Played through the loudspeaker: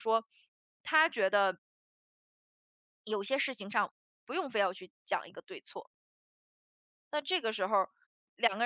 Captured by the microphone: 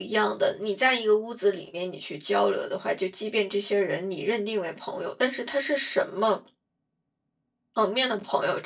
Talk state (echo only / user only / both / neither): user only